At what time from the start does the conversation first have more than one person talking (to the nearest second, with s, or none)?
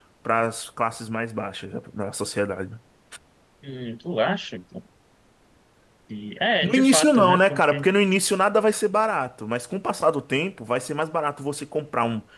7 s